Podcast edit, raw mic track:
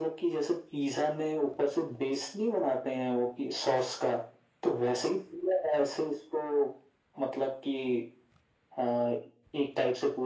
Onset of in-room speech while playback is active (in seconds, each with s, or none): none